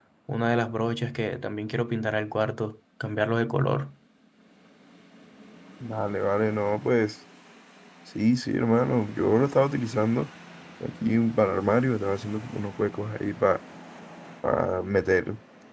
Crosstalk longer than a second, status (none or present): none